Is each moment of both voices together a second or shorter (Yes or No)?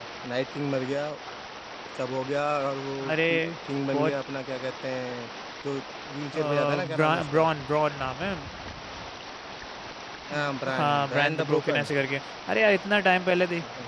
No